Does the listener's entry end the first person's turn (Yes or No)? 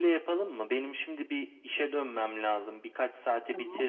No